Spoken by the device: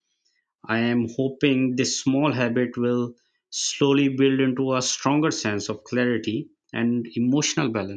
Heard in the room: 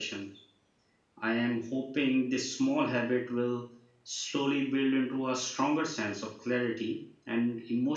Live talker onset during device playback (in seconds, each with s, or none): none